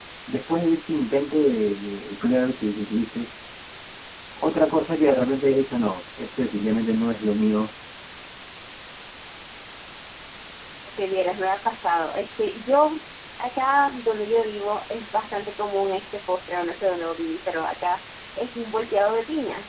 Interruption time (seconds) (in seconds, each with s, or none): none